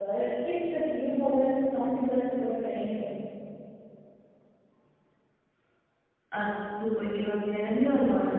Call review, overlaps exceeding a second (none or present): none